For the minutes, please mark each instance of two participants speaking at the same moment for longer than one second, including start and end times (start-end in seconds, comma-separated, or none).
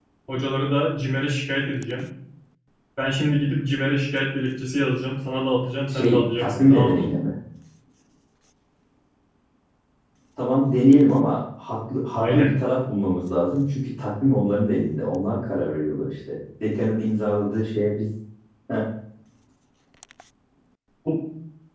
5.9-7.1